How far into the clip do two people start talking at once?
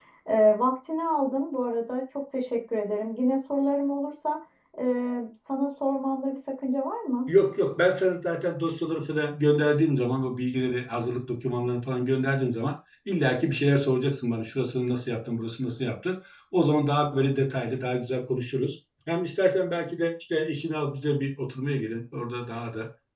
none

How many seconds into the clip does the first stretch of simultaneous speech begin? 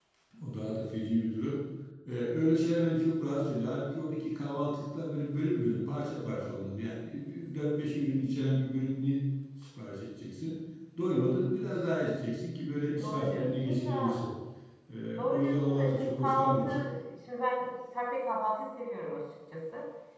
13.0 s

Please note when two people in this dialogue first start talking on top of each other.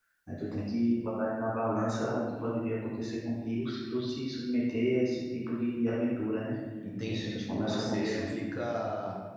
7.1 s

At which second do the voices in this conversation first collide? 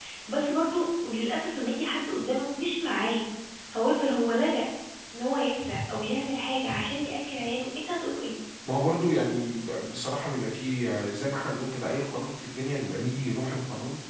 none

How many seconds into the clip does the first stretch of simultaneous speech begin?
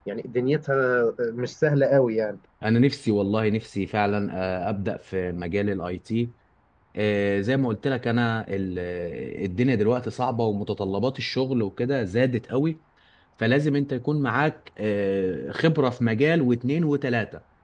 none

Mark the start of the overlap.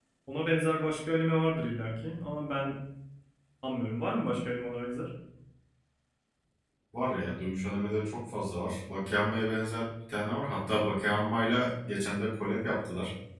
none

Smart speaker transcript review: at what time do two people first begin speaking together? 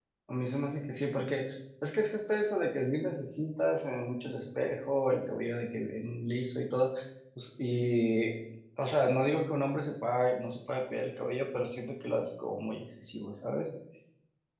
none

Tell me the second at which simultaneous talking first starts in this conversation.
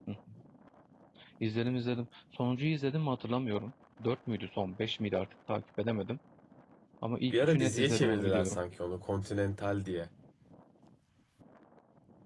7.3 s

